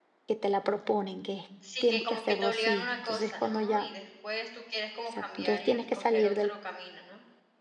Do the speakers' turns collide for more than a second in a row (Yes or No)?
Yes